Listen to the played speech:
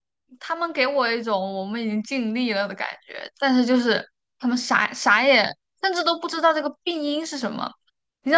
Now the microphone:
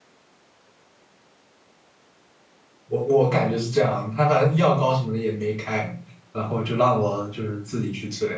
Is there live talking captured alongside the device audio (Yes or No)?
Yes